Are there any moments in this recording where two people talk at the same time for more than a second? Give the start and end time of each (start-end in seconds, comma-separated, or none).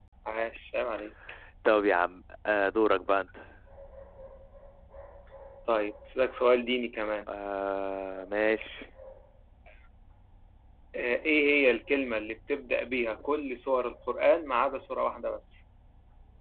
none